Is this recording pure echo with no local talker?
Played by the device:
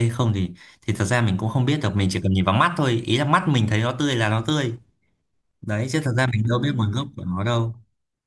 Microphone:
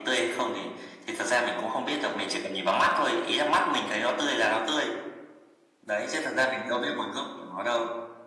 Yes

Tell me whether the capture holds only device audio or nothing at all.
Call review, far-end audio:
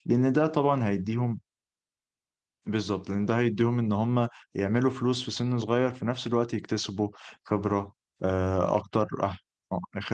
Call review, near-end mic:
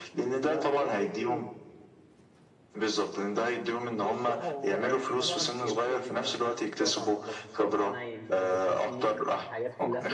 No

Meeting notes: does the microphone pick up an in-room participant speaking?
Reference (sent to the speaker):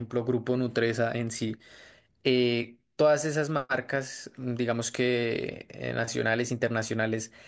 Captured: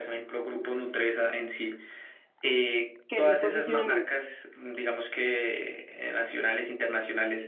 Yes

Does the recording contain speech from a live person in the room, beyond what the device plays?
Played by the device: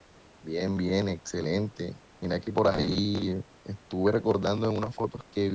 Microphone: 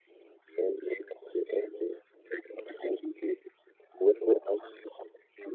No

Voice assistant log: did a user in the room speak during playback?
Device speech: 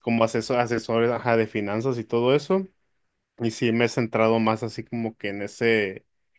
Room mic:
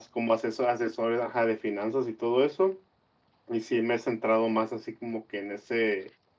No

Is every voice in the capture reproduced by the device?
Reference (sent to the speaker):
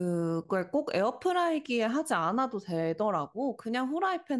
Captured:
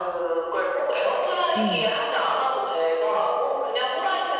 No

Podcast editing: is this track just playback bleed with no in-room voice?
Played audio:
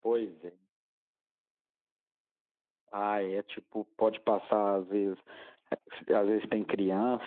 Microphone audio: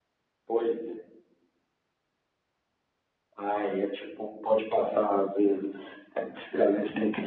Yes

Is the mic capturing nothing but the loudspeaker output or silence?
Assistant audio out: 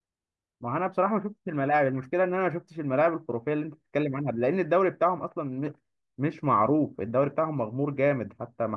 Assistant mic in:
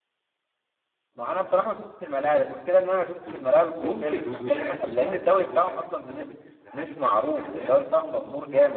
No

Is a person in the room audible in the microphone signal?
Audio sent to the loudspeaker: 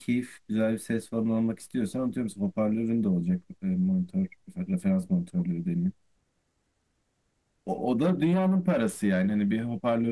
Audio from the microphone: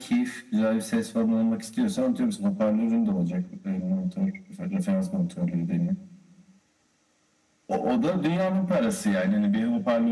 No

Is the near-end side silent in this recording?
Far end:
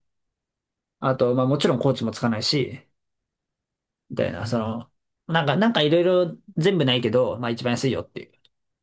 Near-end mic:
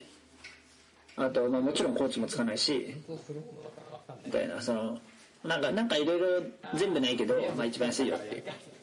No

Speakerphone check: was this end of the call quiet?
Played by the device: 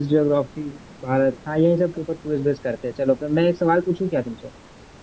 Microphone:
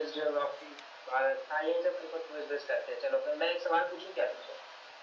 Yes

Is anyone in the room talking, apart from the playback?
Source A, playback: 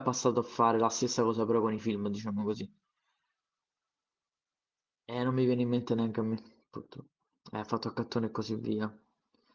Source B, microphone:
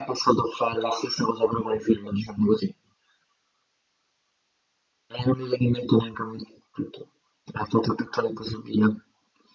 No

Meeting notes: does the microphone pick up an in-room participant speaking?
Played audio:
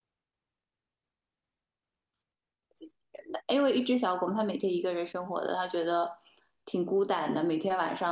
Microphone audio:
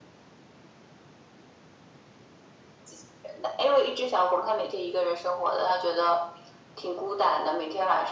No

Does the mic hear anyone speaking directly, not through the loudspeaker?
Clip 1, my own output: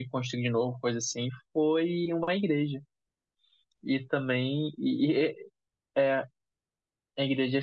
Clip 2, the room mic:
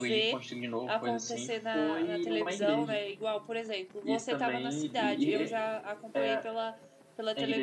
Yes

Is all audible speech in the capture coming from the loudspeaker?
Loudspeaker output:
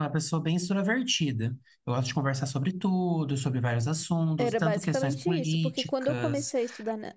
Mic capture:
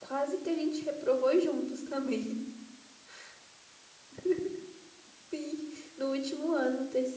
No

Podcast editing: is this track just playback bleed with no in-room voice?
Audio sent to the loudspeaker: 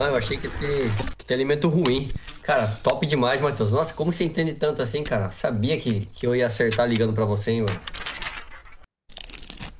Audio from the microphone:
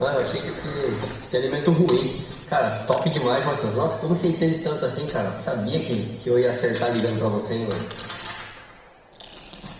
Yes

